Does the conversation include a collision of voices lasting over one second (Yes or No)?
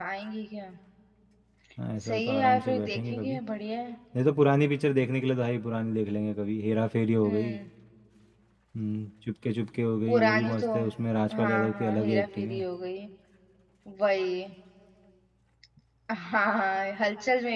Yes